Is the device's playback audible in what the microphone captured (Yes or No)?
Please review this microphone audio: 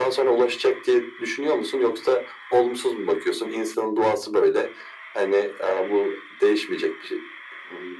Yes